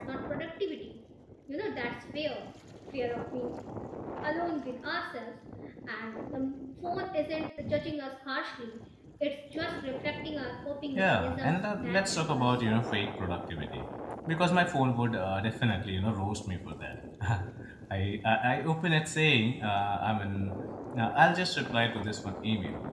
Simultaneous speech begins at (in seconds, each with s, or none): 10.9 s